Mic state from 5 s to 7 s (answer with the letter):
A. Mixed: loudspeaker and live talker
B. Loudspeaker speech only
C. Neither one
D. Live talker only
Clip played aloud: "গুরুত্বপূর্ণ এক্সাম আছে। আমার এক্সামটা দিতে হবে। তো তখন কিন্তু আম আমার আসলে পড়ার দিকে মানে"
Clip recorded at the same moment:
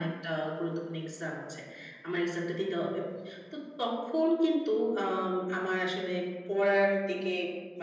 B